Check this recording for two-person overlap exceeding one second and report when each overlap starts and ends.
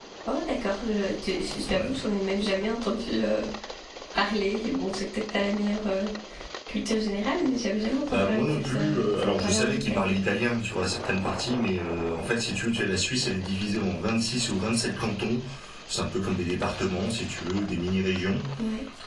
8.1-10.2

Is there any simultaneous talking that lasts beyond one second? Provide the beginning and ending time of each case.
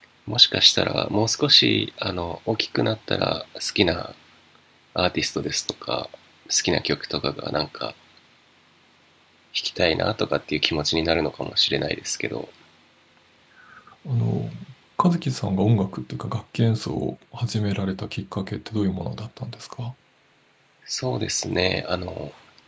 none

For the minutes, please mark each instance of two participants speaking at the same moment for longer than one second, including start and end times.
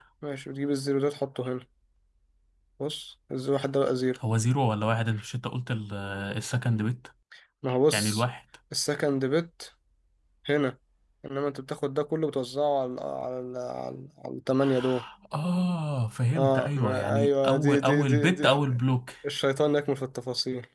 16.4-18.8

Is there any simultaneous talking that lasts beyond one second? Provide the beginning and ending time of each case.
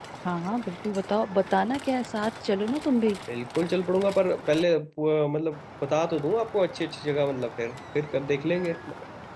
none

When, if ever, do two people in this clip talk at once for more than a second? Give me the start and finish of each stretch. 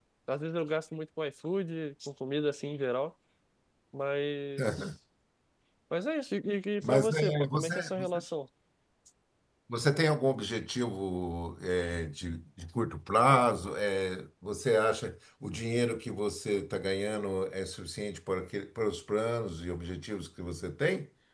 6.8-8.2

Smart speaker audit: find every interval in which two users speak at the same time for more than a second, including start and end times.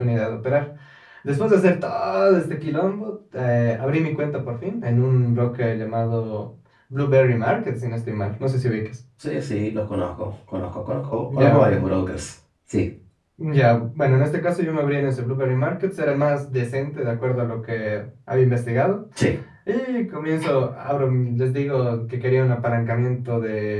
none

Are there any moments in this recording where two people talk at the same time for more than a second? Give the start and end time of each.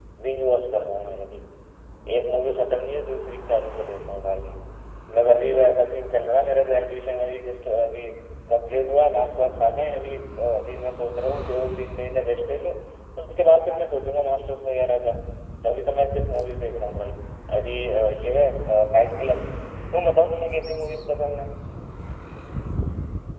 none

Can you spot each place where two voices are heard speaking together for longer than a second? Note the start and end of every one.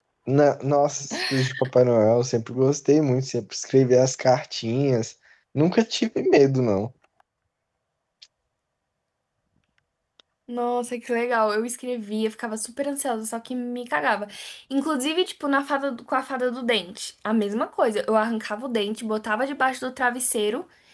none

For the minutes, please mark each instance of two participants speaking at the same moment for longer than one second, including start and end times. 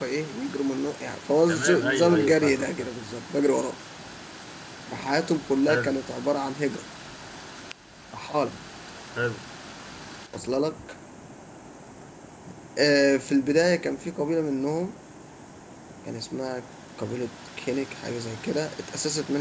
1.5-2.9

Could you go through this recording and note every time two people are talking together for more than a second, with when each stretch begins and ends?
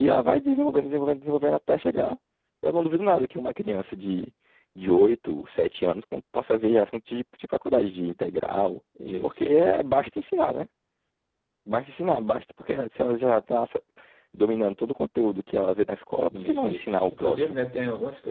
16.3-17.6

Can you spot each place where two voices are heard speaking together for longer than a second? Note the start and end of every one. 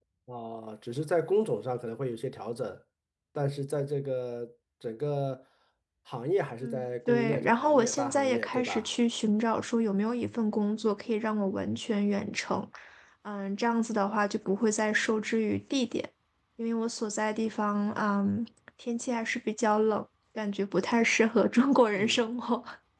6.6-8.9

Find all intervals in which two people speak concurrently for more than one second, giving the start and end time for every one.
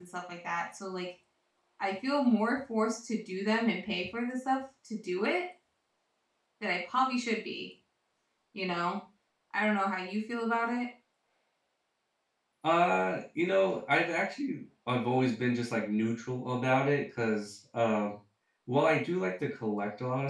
none

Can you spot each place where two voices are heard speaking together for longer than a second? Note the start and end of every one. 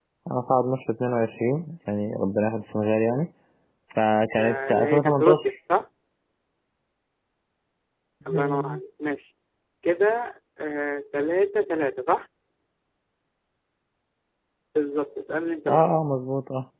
4.4-5.6

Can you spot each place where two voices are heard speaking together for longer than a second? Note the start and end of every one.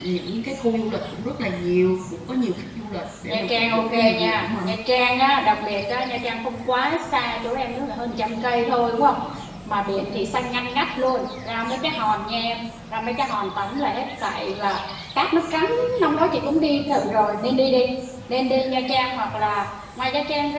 3.2-4.7

